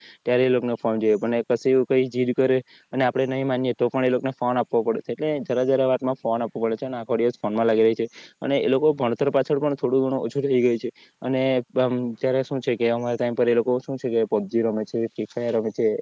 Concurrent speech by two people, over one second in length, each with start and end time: none

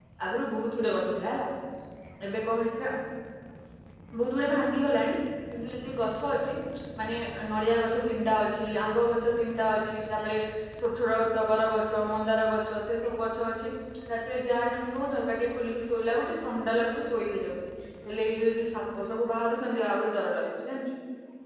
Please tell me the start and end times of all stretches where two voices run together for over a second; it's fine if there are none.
none

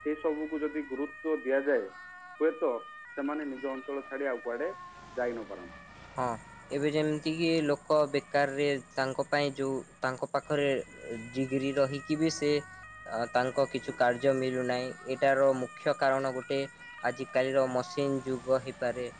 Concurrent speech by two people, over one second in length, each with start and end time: none

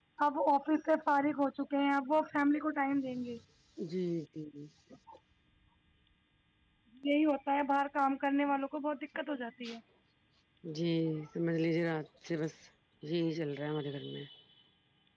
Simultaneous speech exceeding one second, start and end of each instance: none

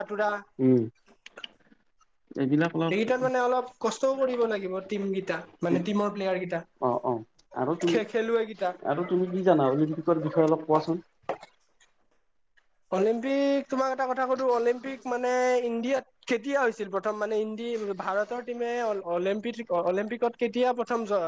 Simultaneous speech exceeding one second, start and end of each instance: none

